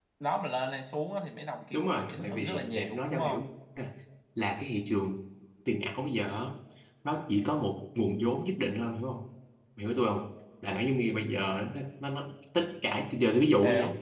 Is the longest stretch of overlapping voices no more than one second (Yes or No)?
No